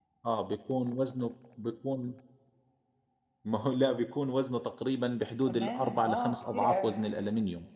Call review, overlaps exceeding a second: present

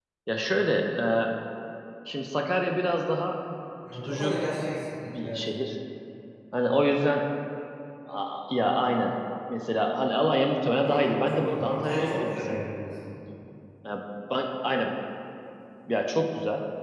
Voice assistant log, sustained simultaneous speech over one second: present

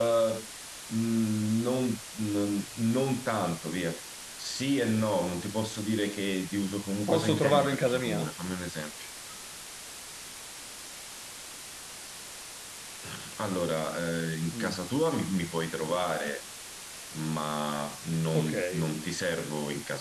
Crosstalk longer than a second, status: present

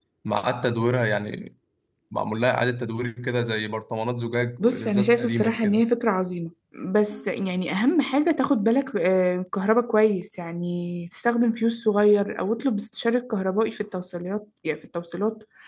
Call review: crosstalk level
present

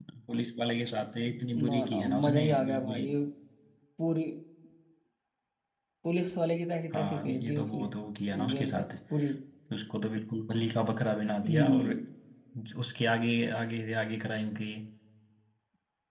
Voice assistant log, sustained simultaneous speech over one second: present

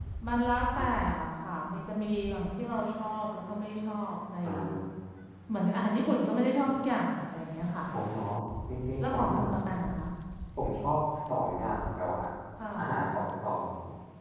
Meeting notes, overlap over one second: none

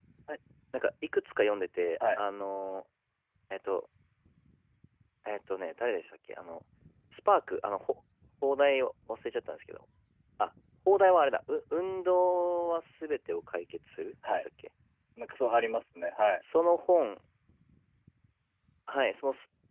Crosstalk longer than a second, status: none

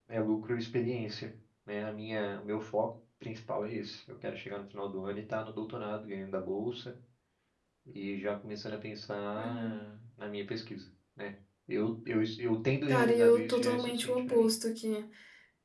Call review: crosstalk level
present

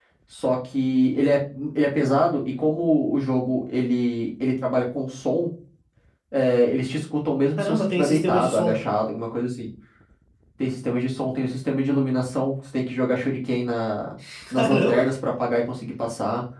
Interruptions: present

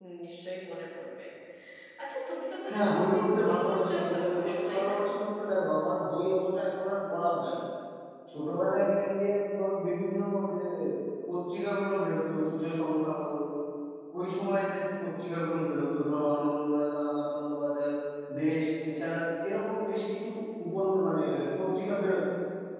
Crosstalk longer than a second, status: present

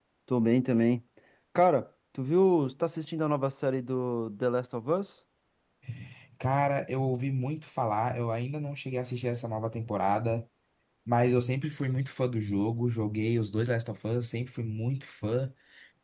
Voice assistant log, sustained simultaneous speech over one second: none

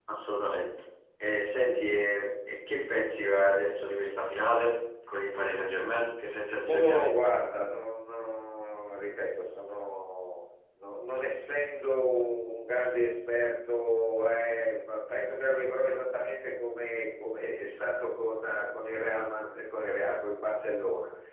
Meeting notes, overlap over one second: none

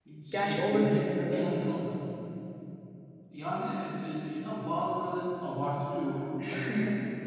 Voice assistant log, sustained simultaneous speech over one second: present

